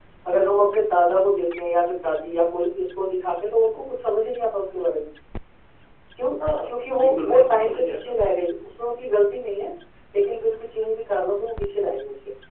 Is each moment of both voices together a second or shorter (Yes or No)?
No